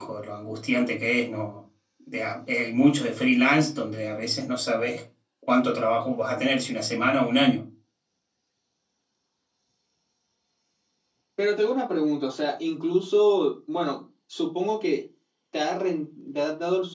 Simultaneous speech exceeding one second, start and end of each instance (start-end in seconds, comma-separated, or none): none